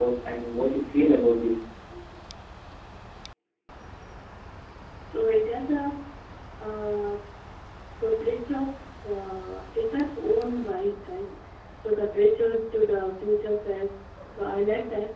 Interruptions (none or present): none